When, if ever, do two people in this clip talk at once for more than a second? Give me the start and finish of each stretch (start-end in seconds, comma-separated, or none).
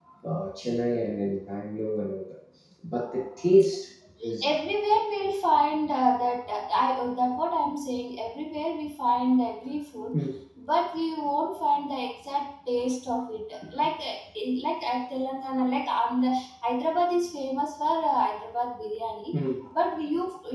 none